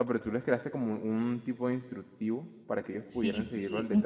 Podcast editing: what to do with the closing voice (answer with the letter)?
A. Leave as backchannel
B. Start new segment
B